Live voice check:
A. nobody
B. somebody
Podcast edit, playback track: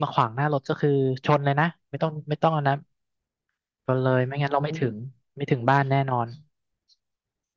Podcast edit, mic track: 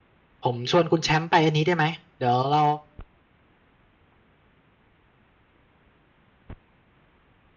B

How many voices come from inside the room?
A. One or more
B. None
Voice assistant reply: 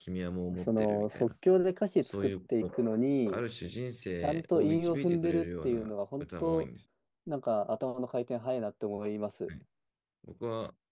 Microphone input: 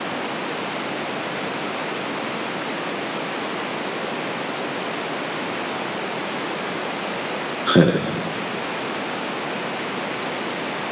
A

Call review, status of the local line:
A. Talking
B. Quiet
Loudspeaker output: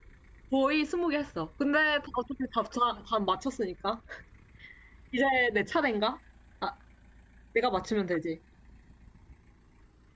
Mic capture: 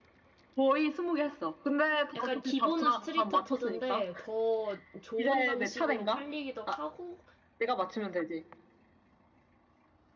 A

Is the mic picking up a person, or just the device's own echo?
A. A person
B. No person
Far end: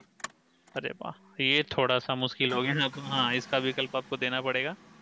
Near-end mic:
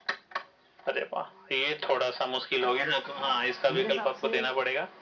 A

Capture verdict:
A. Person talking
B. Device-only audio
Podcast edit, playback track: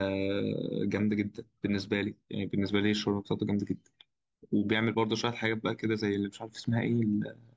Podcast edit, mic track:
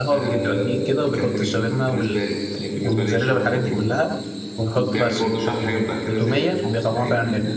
A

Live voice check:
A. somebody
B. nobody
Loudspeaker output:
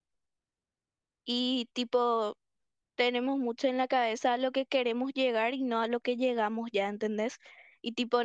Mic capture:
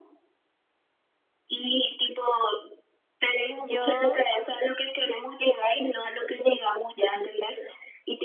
A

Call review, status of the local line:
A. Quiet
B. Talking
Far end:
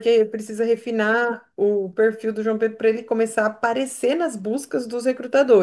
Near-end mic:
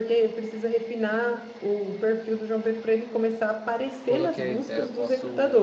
B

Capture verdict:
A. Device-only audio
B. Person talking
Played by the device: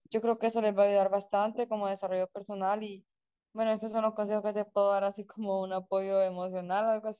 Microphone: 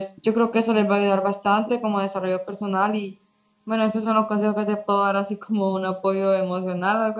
A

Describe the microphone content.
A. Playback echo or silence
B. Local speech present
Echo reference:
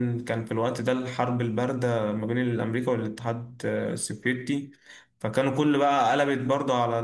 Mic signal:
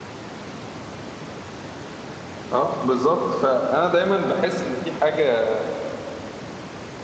B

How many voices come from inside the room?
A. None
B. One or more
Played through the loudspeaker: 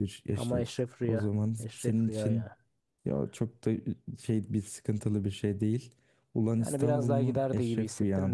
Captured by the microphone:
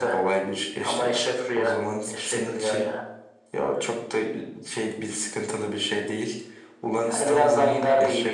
A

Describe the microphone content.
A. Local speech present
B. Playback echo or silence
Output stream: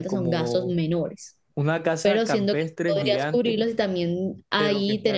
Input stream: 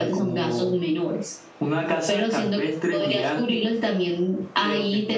B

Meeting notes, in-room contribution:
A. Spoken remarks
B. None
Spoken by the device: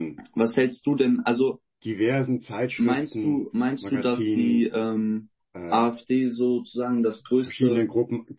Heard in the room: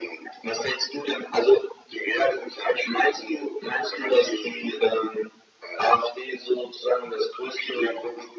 B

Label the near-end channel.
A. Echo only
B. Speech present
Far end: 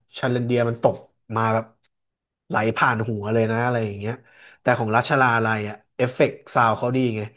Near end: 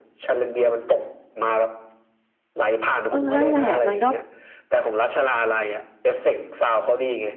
B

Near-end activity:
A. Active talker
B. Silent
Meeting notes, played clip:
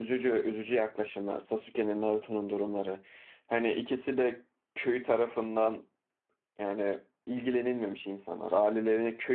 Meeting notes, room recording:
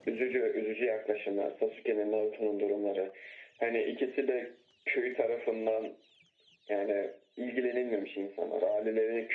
B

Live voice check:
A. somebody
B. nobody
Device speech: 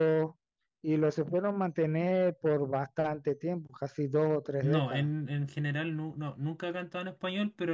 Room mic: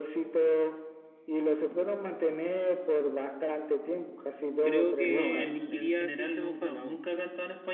A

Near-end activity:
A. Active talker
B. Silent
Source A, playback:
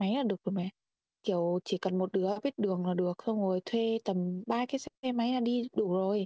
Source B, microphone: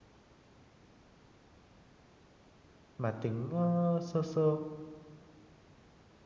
A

